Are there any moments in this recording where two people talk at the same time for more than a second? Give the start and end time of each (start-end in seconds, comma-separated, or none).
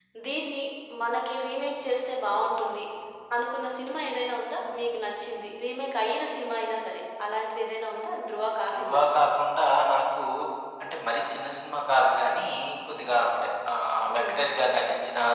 none